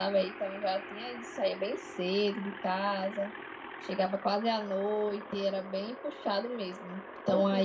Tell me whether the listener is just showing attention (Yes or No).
Yes